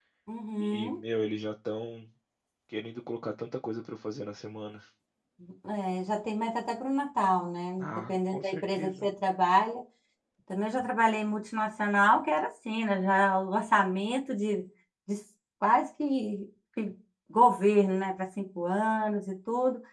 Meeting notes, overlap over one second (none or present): present